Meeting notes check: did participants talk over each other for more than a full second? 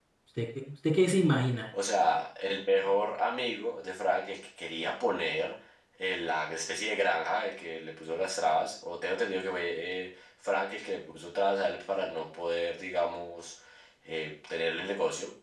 No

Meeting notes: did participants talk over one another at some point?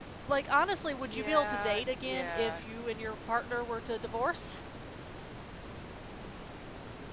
Yes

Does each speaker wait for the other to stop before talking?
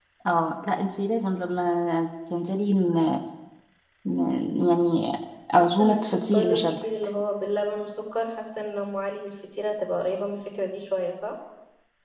No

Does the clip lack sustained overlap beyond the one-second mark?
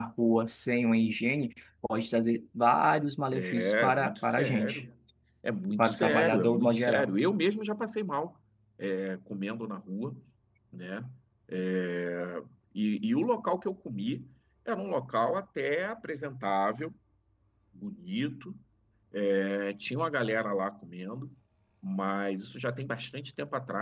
No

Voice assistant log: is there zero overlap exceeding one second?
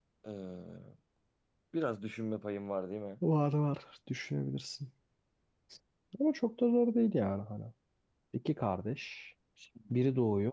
Yes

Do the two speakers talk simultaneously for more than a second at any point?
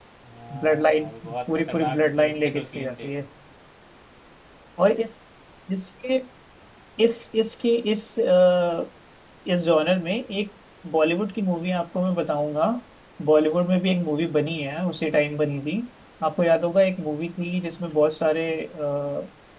Yes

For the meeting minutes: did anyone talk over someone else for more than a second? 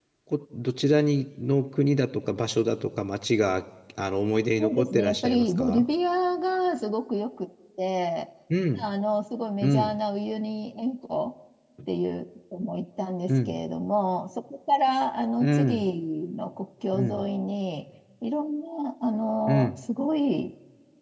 Yes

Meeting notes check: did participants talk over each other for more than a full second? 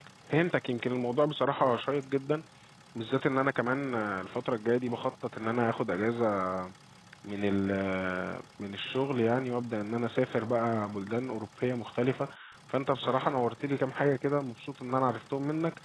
No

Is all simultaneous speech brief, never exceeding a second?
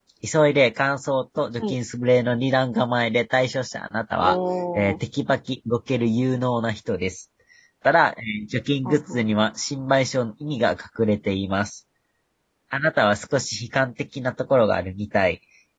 Yes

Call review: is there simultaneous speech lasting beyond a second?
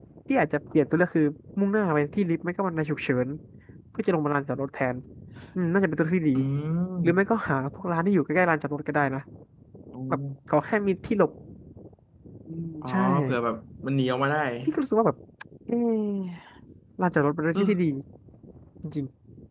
No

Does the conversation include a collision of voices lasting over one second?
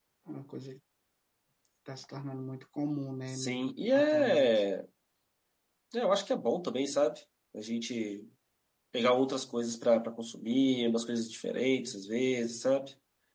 Yes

